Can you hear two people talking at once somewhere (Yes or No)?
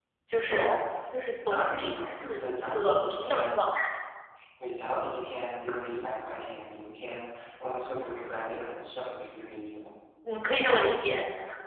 Yes